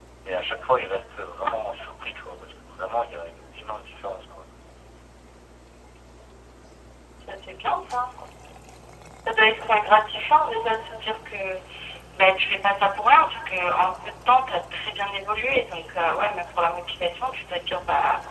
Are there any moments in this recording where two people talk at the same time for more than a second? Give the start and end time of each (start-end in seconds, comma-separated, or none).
none